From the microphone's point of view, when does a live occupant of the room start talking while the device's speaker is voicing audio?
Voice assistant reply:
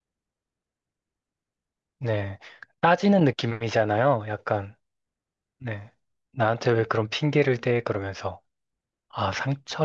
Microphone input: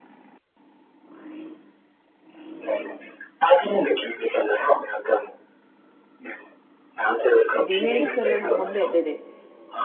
7.6 s

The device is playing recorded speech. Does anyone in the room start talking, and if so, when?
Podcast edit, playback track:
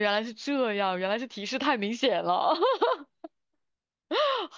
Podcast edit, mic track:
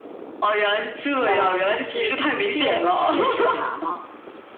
1.2 s

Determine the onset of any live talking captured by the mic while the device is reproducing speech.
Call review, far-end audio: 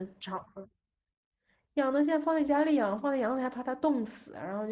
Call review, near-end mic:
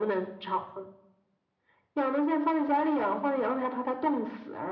none

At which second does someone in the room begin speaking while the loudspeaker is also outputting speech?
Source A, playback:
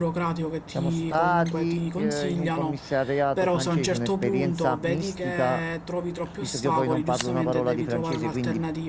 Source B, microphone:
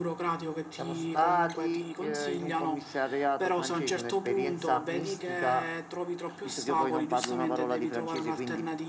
none

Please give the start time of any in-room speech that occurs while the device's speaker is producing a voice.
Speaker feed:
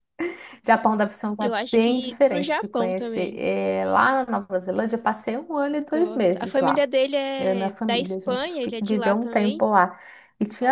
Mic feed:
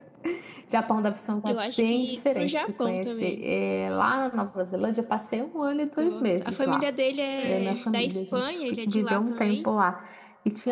7.4 s

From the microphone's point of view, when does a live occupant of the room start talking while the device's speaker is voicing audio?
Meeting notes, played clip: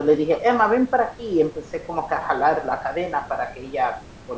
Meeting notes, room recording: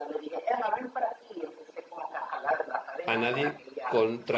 3.0 s

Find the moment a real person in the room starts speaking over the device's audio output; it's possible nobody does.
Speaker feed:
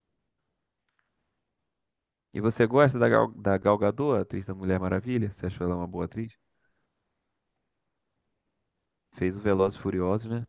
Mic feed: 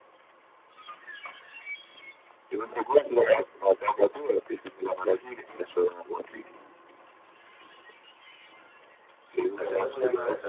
9.6 s

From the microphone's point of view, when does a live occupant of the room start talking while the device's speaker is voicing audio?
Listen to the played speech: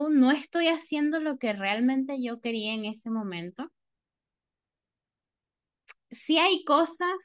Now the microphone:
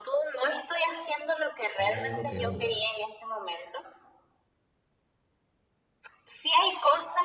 1.7 s

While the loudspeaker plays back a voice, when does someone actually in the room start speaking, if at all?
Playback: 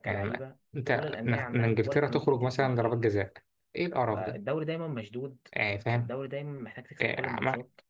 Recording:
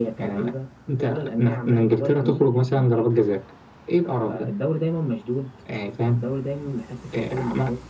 none

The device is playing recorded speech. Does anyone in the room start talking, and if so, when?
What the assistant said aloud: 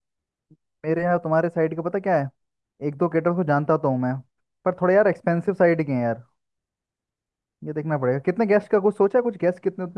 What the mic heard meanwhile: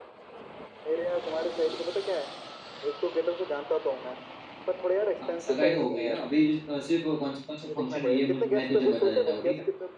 5.2 s

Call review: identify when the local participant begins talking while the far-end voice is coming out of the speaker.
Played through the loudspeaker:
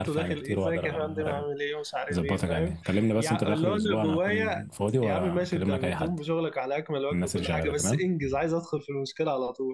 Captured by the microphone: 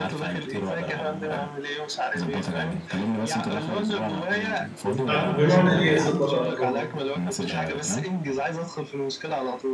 4.9 s

